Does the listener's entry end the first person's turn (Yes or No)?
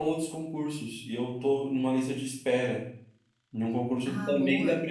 No